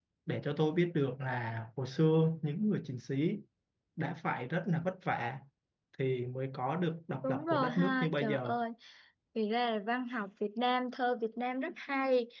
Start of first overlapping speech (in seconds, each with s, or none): 7.2 s